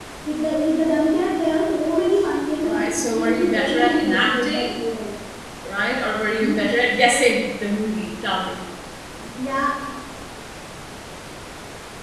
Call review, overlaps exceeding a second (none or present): present